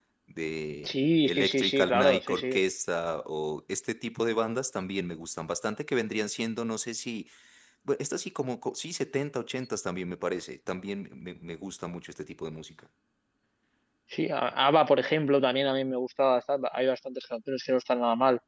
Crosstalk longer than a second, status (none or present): present